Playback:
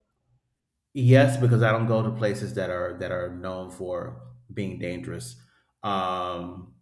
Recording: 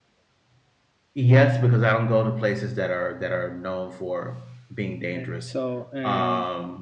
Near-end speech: present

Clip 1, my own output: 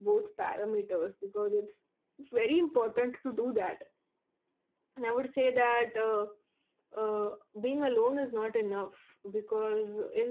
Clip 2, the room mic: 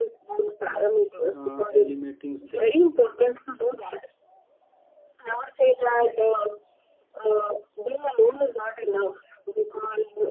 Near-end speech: present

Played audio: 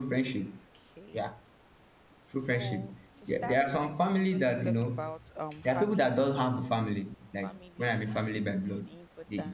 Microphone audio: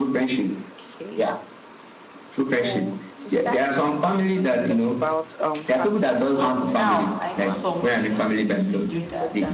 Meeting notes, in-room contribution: present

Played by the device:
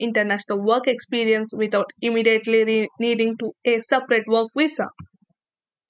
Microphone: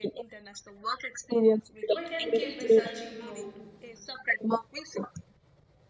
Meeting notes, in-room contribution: present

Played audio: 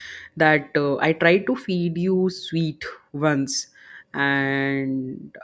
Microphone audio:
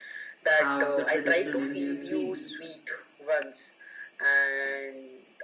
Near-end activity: present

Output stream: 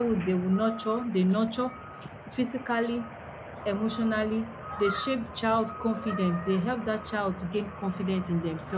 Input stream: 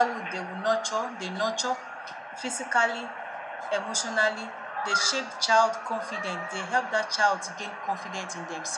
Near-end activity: none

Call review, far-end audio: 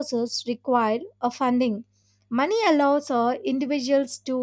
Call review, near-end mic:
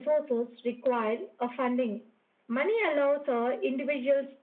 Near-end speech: none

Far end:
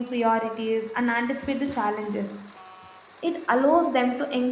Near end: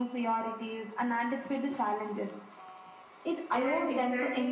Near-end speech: present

